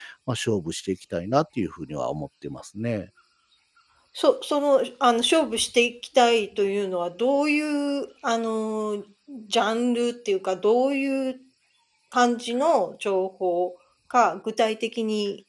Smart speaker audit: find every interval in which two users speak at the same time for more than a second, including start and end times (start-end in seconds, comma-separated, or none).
none